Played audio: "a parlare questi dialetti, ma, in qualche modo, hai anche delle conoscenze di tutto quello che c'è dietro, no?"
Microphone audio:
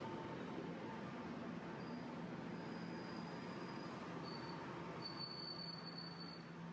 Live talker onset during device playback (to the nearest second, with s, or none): none